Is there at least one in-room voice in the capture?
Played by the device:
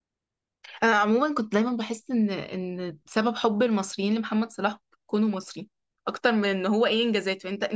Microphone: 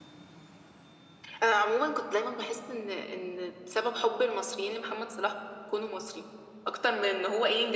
No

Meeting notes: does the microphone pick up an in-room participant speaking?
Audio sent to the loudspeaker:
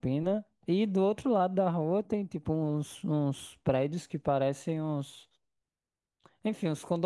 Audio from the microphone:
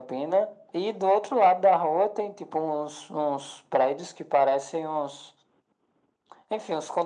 No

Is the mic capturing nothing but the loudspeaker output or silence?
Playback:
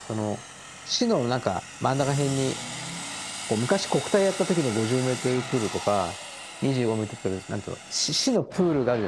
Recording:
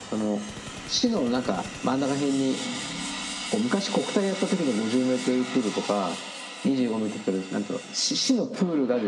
Yes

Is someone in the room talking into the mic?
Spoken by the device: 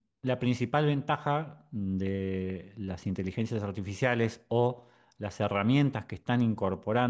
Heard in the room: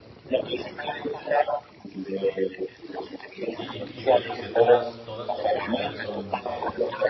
Yes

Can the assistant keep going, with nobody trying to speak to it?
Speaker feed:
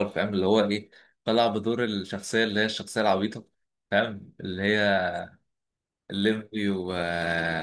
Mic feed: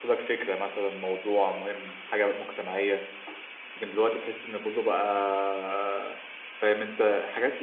No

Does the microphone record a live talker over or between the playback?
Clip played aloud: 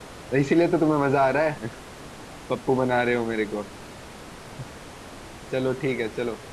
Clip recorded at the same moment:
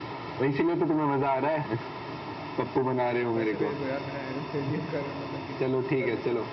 Yes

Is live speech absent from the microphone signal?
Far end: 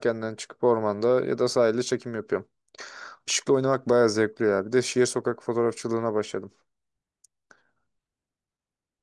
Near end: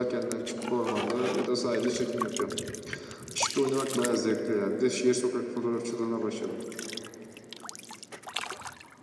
Yes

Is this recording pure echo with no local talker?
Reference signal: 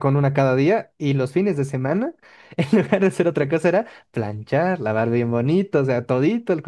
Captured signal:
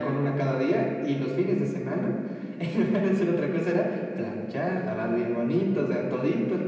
Yes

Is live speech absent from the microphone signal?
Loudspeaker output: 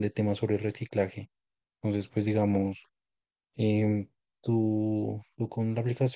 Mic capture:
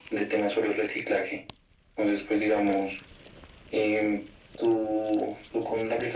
Yes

